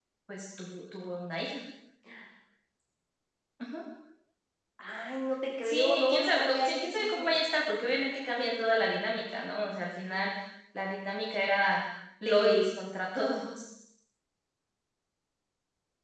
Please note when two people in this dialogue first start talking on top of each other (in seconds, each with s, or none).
5.6 s